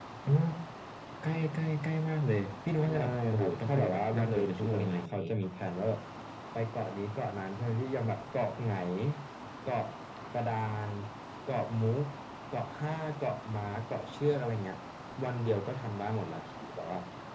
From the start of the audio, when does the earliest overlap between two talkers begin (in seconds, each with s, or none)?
2.8 s